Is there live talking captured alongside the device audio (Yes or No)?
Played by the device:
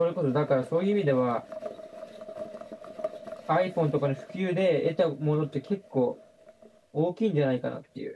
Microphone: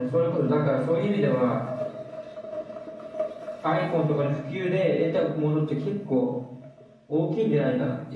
No